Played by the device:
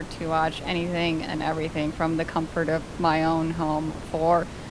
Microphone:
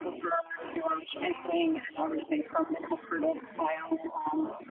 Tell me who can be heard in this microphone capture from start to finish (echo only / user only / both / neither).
both